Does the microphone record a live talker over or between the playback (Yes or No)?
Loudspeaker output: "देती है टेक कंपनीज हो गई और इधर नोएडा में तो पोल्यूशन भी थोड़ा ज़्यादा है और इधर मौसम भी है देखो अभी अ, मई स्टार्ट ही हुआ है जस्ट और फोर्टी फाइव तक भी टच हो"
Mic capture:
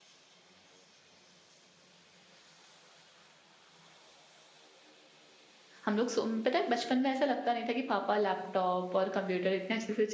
Yes